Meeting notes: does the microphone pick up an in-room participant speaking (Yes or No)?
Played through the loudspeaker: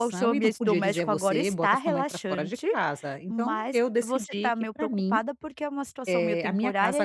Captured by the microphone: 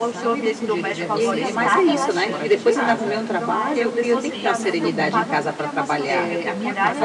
Yes